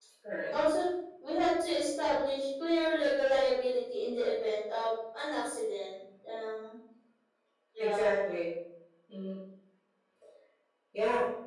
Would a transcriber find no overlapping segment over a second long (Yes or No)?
Yes